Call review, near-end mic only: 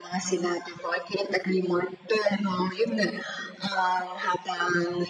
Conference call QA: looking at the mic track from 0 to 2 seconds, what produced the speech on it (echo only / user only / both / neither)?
echo only